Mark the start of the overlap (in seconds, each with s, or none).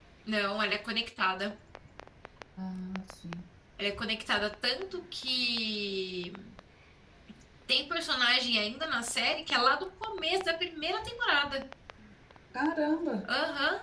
none